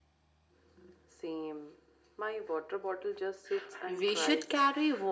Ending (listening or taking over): taking over